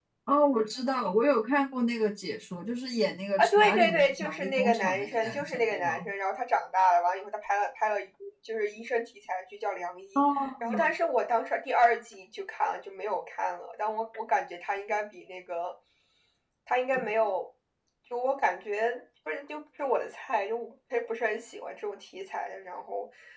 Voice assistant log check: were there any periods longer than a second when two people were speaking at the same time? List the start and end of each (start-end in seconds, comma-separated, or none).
3.4-6.1